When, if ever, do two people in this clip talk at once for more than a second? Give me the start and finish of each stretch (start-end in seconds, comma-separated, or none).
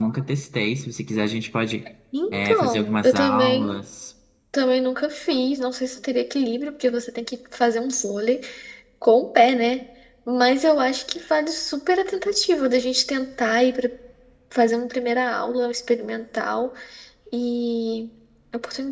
2.3-3.8